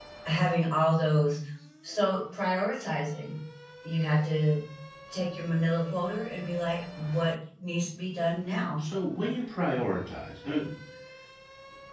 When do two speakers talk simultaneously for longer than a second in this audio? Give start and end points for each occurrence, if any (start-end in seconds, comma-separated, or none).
none